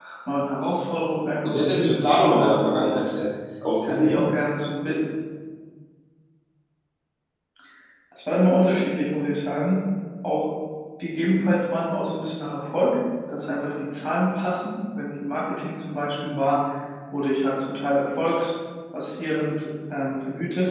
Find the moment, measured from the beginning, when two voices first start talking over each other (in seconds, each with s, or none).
1.4 s